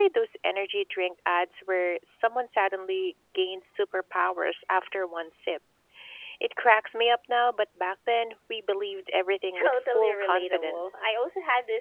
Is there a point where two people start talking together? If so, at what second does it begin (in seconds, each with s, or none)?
9.6 s